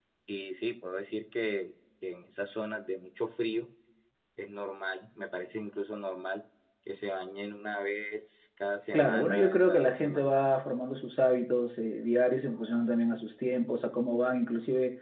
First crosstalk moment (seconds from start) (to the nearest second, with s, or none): 9 s